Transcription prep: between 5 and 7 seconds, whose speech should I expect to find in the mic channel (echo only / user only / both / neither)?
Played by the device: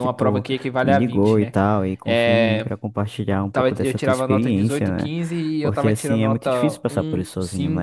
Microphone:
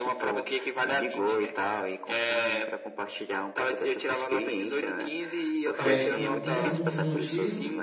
both